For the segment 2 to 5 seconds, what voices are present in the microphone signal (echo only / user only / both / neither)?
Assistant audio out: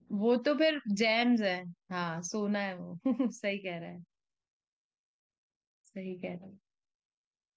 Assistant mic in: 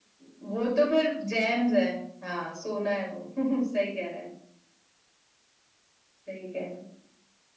echo only